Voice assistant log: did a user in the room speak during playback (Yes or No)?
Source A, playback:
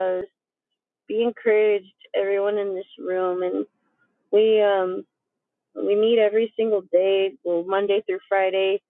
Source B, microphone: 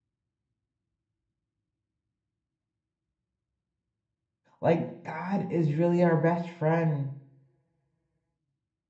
Yes